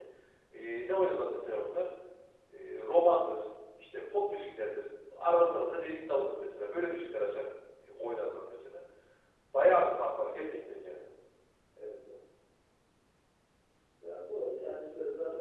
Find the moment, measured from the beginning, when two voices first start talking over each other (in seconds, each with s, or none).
none